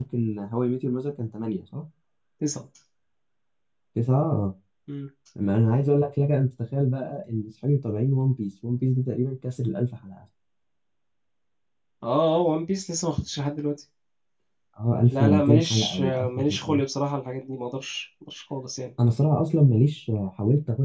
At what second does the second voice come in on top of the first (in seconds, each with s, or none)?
15.1 s